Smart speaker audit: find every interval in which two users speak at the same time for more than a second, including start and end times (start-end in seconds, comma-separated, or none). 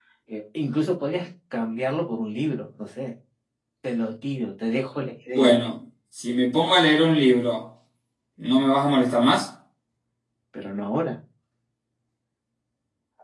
none